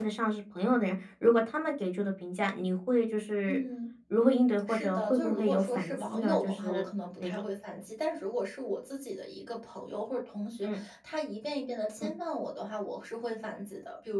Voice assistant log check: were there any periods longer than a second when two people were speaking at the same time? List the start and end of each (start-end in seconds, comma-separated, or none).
4.7-6.8